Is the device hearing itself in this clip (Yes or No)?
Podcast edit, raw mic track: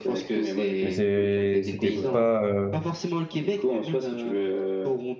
Yes